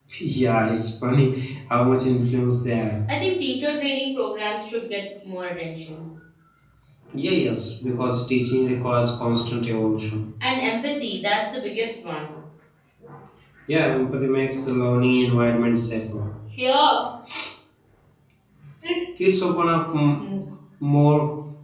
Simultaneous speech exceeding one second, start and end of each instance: none

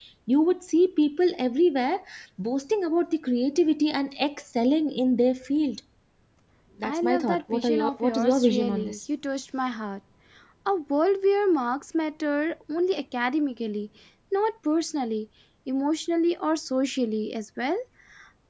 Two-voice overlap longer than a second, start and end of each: 6.8-9.0

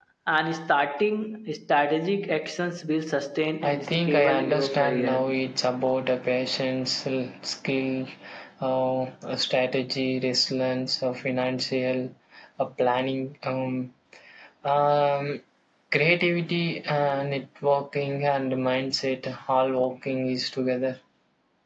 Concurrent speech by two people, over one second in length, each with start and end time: 3.6-5.2

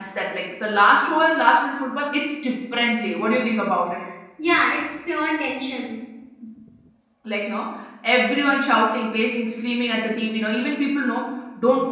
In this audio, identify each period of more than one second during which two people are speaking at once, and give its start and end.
none

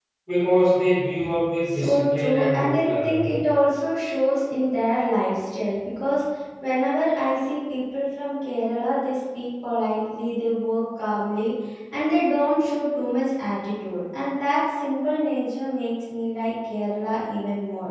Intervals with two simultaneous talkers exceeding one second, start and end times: 1.7-3.2

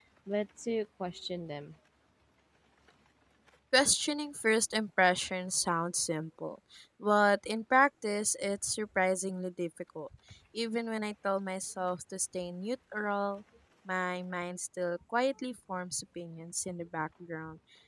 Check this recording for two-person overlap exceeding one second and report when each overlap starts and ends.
none

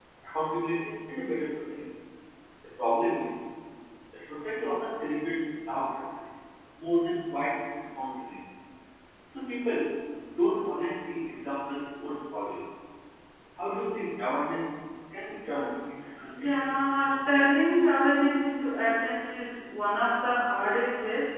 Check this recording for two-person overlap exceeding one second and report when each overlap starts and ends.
16.4-17.7

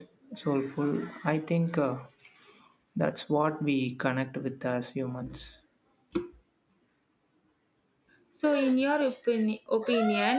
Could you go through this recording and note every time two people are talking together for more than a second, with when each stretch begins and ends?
none

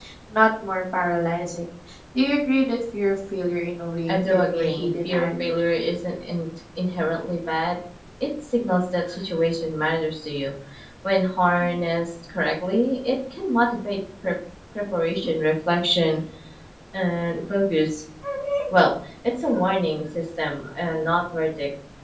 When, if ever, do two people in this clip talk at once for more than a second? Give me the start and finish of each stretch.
4.1-5.5

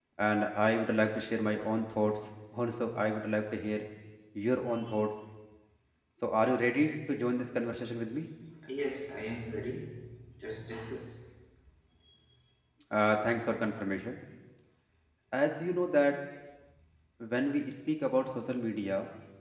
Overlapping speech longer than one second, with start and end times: none

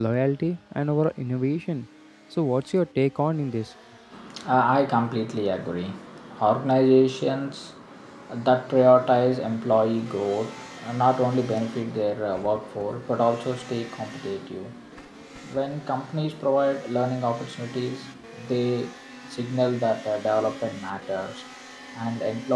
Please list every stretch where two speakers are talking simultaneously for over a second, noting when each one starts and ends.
none

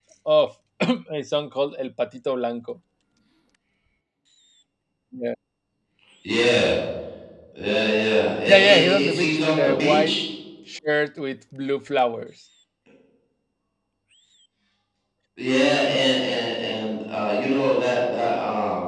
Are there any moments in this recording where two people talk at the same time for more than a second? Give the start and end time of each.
8.5-10.1

